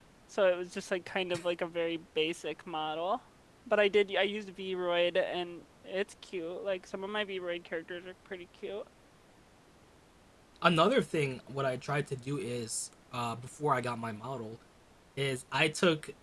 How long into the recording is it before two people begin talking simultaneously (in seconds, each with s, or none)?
none